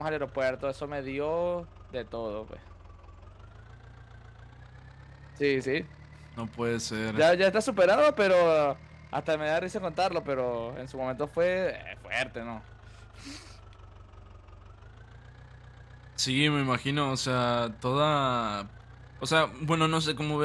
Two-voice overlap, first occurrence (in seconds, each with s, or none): none